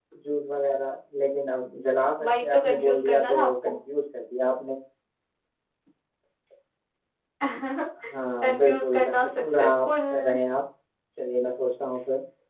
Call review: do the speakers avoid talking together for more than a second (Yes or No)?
No